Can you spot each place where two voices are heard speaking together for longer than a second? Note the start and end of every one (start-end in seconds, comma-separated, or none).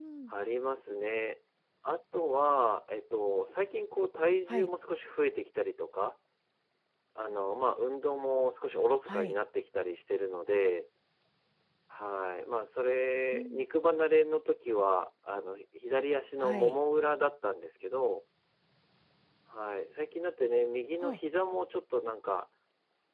none